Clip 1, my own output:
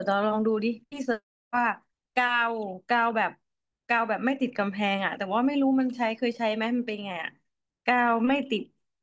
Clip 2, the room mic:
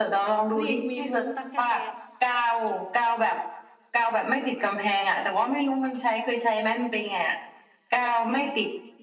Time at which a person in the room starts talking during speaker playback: 0.6 s

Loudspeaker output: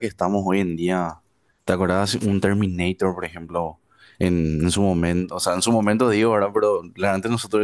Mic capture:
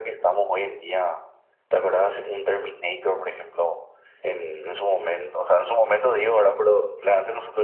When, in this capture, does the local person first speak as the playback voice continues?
none

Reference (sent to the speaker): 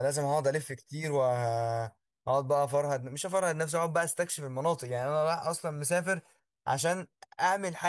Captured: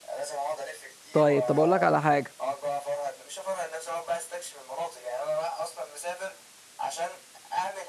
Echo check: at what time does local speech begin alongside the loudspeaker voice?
1.1 s

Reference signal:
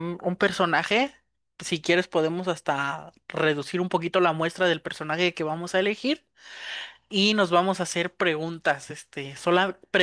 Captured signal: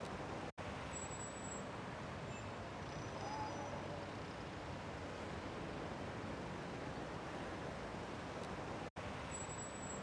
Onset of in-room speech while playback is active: none

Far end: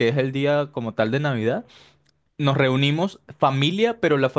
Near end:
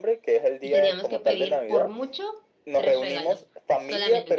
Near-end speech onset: 0.6 s

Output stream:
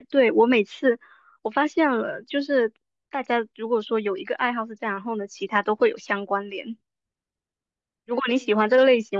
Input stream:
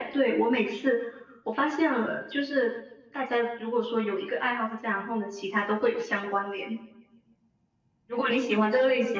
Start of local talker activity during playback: none

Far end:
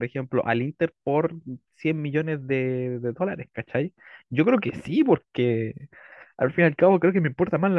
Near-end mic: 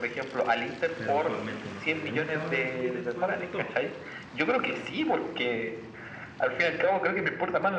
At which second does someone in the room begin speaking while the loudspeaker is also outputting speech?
0.9 s

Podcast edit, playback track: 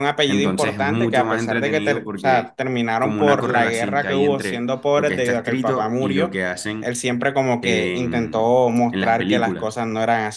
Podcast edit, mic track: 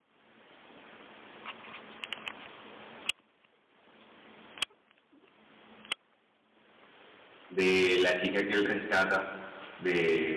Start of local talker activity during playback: 7.5 s

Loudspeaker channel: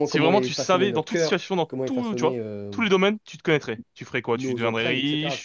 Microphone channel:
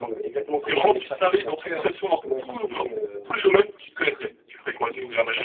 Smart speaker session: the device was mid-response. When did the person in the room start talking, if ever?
none

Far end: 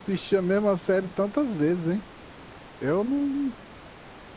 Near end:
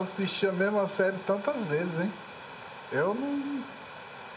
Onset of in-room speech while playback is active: none

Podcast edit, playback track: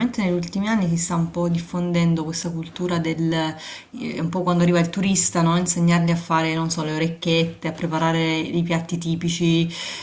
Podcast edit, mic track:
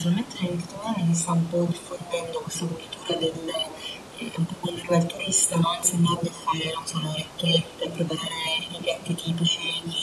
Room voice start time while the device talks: none

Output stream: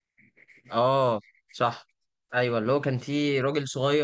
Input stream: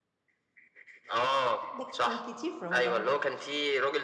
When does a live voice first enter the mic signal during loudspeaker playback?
1.7 s

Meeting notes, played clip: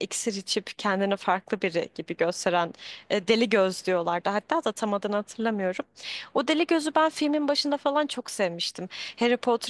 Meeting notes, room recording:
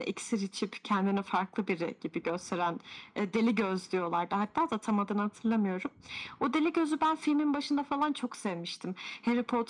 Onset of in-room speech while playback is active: none

